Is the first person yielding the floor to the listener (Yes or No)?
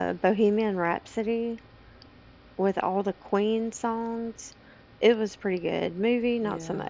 Yes